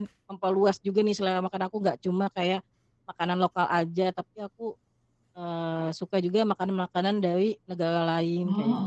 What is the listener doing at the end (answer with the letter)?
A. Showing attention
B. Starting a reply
B